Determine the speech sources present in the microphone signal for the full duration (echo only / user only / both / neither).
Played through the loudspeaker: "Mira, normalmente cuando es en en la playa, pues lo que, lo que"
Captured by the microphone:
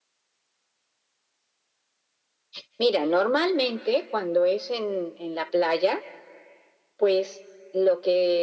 echo only